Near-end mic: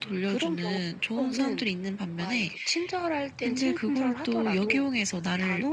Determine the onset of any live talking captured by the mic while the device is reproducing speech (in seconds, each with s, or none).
none